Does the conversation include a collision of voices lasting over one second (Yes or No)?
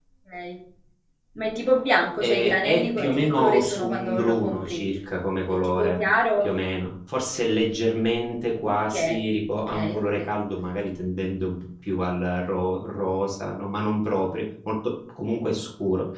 Yes